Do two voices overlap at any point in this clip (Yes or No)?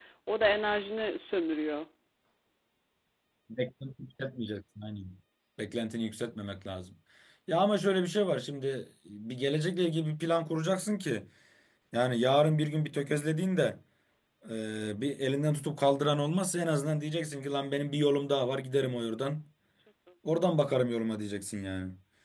No